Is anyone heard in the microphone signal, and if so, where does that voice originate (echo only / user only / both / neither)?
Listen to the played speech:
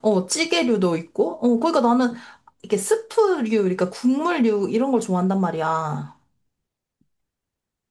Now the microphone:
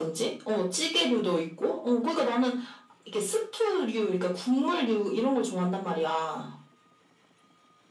echo only